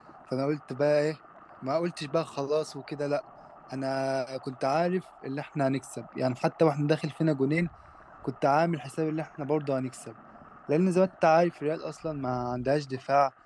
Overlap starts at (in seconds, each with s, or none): none